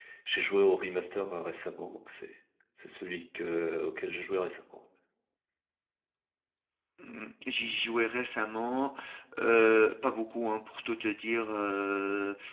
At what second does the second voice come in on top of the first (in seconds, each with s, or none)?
none